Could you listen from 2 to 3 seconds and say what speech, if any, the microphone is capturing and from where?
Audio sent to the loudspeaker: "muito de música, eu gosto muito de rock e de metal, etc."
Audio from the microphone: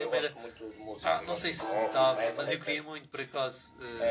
both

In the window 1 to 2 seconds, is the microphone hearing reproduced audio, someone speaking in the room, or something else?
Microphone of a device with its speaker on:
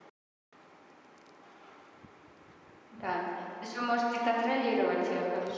neither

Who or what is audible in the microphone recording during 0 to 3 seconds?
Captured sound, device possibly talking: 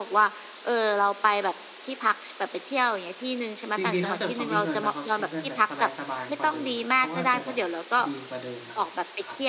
echo only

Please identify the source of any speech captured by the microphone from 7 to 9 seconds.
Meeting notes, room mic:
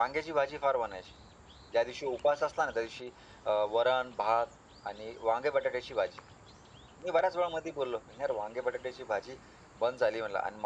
echo only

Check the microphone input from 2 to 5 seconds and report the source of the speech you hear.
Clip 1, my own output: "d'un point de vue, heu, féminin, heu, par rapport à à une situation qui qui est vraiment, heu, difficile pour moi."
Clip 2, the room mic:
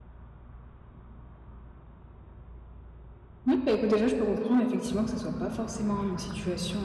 user only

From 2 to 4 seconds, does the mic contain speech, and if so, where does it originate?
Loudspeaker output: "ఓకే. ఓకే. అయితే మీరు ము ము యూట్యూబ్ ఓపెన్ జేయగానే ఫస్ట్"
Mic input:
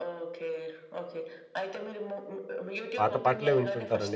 both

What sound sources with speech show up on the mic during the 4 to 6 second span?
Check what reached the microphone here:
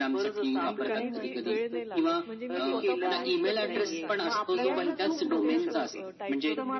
both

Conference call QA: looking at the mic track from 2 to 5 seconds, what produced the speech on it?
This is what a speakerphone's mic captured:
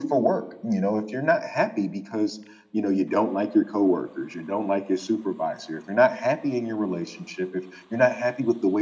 echo only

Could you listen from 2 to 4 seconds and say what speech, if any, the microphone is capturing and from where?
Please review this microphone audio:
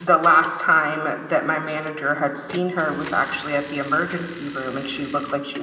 echo only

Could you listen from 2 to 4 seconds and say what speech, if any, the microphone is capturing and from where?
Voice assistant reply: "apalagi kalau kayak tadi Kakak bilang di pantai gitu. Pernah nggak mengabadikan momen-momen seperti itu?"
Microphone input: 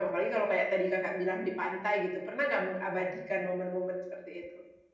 echo only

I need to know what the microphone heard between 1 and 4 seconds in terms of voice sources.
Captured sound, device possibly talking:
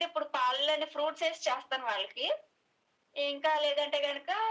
echo only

